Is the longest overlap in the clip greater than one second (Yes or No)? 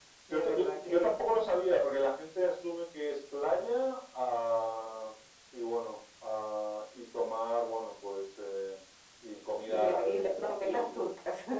Yes